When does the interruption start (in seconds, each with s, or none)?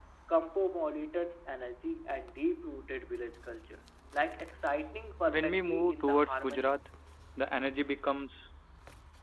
5.3 s